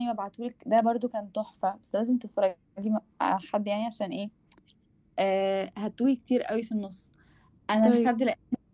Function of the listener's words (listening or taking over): listening